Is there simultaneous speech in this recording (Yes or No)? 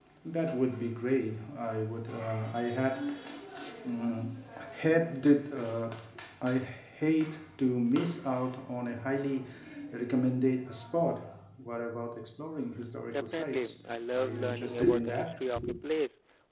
Yes